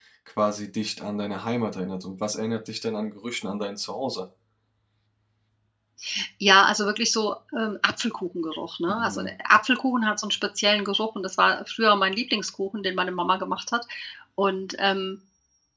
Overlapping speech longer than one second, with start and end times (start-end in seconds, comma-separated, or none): none